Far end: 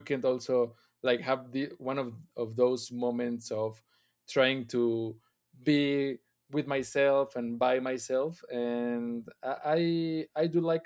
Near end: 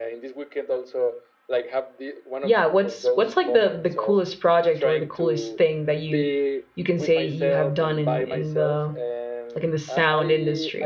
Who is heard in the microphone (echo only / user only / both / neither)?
both